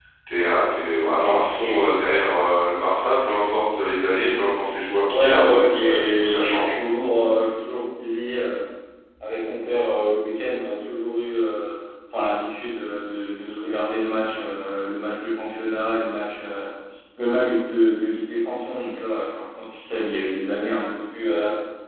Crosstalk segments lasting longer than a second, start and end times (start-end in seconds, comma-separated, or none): 5.1-6.6